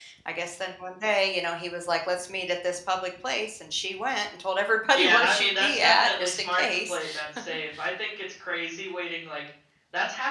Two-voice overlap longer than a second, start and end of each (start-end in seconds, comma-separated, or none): 4.9-7.0